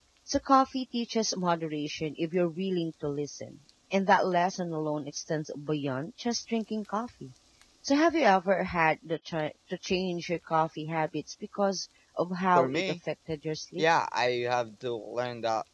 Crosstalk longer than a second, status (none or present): none